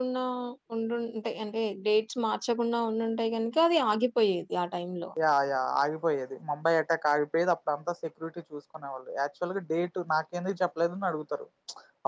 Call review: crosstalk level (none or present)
none